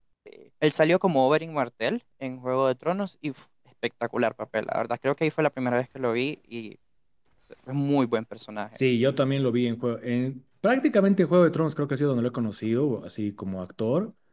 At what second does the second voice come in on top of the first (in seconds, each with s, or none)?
none